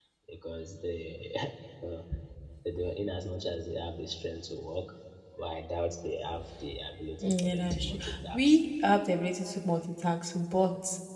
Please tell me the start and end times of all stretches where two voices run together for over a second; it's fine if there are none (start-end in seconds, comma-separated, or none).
7.2-8.6